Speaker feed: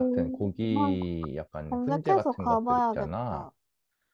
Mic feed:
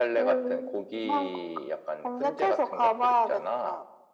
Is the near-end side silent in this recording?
Yes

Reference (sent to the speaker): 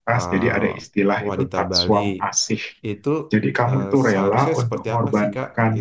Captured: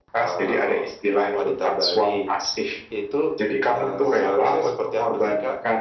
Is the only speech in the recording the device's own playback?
Yes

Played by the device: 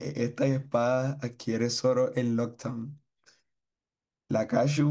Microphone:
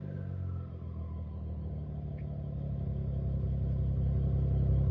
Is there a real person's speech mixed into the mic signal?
No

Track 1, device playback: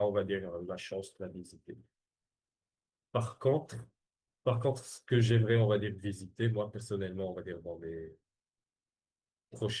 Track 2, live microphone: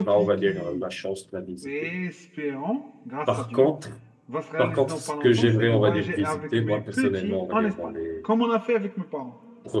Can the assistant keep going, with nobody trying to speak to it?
No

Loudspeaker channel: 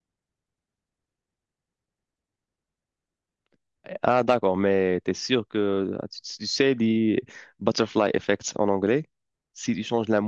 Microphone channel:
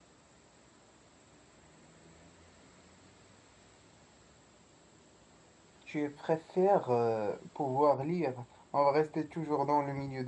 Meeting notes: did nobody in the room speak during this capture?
No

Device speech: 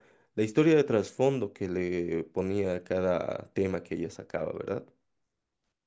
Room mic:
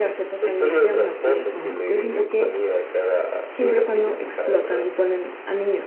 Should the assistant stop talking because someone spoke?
Yes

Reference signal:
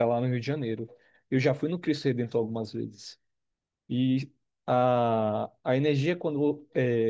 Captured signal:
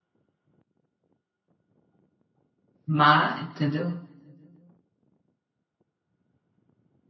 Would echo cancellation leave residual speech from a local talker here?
Yes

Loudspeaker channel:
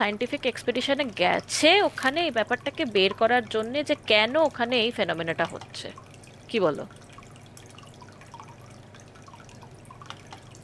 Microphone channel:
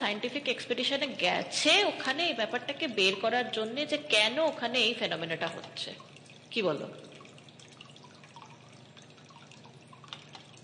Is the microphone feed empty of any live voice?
Yes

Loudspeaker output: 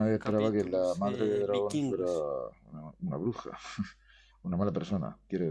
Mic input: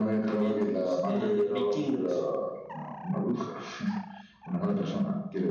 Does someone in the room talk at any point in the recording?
No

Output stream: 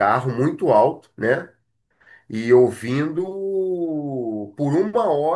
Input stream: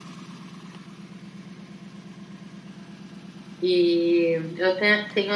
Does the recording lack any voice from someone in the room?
No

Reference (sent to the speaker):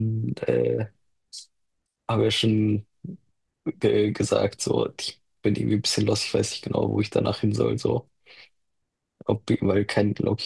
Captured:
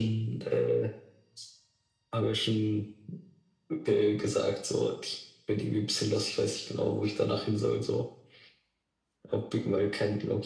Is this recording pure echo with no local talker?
Yes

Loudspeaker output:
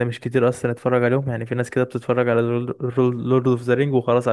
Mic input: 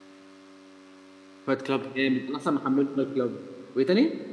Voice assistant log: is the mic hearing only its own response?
No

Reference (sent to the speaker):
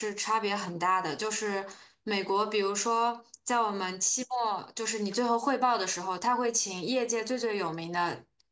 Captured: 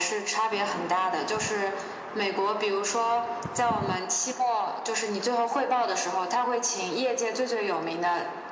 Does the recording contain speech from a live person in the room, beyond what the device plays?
No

